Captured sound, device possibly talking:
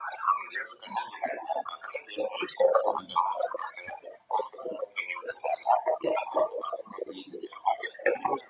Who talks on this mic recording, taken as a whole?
echo only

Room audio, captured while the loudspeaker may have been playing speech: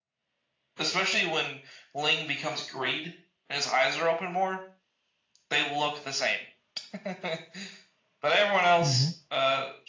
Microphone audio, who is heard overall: both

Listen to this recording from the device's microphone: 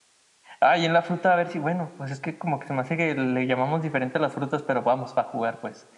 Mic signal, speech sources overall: user only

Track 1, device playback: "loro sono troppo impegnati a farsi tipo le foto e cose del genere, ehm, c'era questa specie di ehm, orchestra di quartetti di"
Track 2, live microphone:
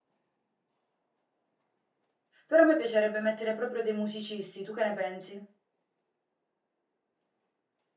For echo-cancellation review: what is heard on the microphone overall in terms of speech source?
user only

